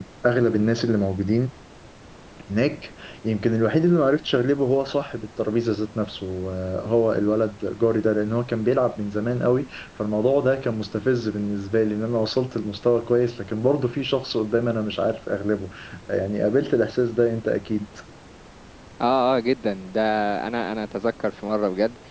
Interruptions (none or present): none